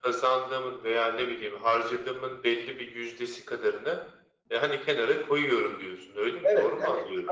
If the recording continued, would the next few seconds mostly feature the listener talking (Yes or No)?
Yes